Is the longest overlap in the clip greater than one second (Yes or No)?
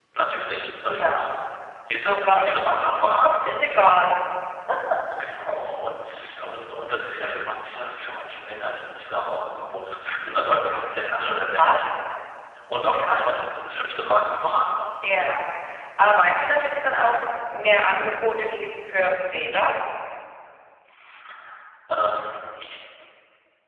Yes